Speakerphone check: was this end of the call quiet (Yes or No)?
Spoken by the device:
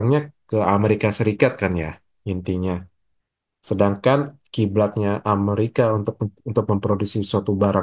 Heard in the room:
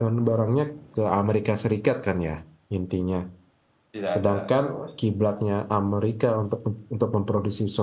No